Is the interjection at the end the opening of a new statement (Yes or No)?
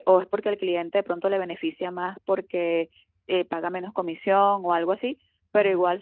No